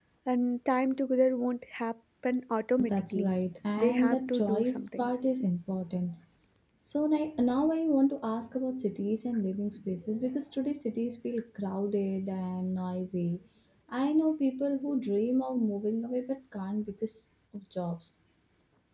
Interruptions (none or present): present